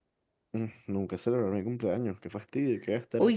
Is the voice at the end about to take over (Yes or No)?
Yes